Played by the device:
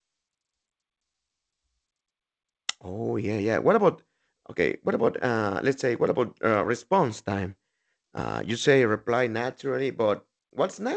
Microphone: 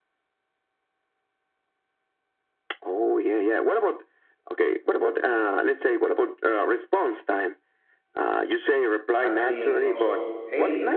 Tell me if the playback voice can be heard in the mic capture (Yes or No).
Yes